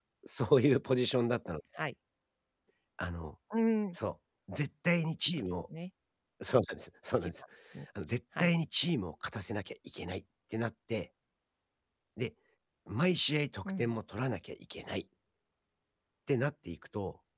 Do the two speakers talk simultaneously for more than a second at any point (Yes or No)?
No